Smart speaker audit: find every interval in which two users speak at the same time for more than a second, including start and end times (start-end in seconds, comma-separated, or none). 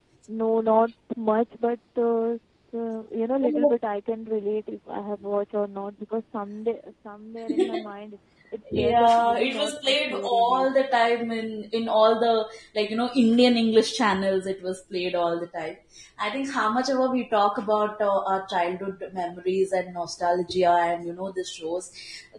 8.7-10.8